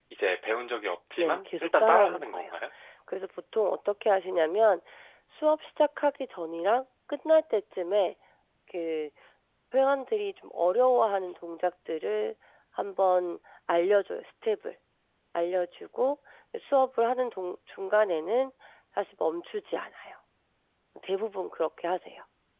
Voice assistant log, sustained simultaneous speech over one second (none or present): present